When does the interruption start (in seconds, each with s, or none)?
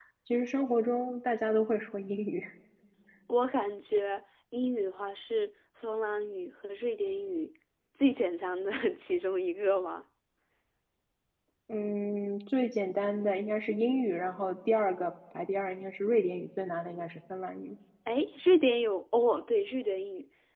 none